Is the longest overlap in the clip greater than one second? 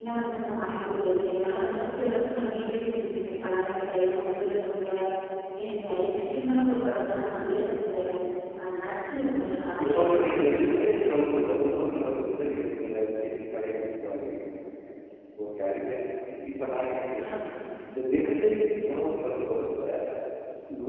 Yes, from 9.8 s

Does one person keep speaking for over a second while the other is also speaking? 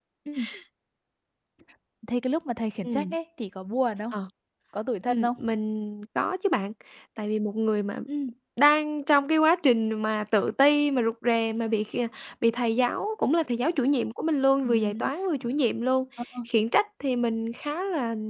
No

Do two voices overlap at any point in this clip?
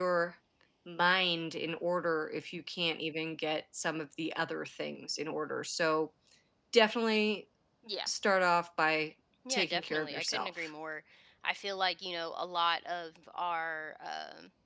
Yes, from 9.4 s

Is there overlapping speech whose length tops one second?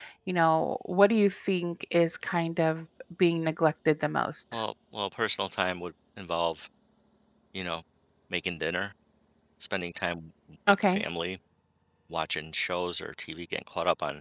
No

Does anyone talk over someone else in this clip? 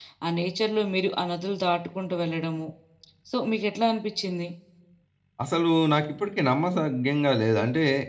No

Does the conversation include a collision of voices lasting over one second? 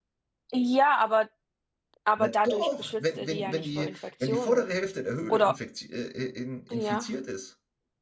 Yes, from 2.2 s

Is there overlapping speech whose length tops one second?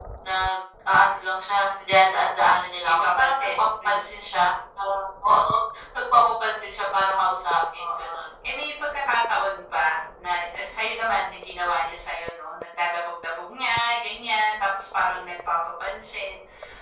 Yes, from 2.8 s

